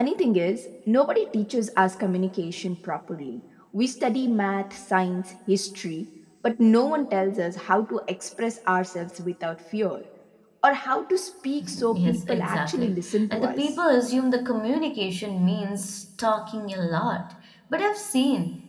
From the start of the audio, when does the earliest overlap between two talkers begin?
11.9 s

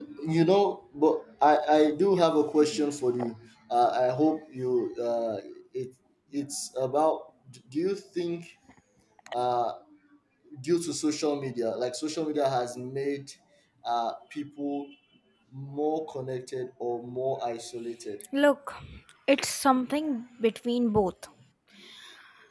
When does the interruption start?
none

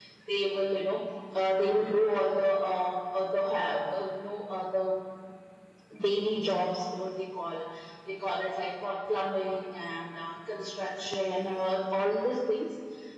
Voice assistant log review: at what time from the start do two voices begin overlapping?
none

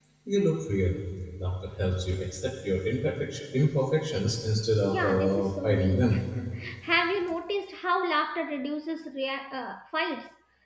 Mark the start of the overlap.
4.9 s

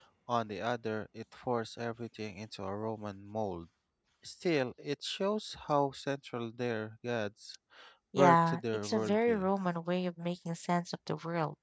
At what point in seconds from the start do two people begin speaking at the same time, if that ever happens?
8.2 s

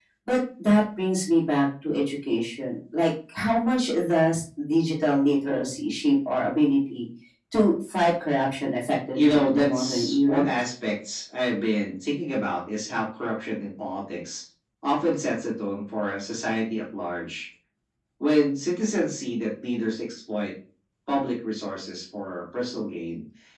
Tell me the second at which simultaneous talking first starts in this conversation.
9.1 s

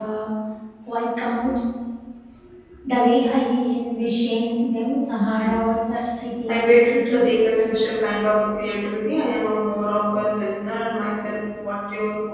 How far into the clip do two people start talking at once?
6.5 s

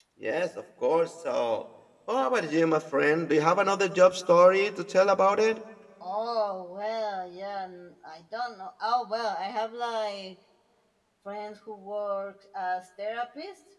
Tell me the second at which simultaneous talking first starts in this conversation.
none

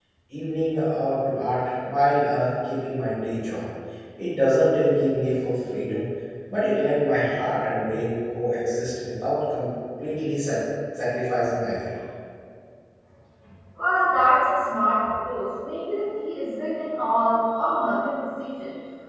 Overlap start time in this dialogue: none

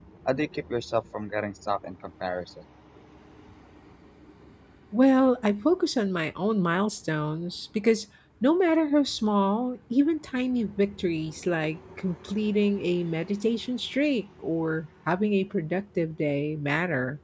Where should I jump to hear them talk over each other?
none

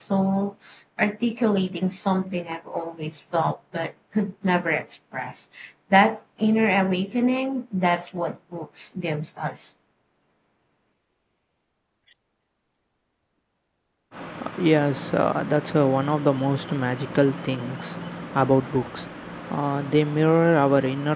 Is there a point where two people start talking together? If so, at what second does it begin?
none

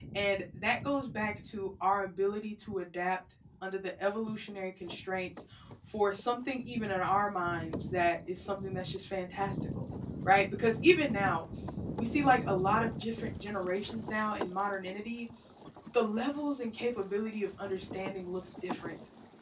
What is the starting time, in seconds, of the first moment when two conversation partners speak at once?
none

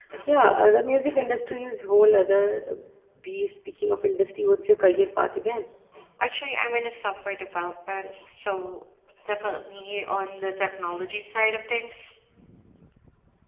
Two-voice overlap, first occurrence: none

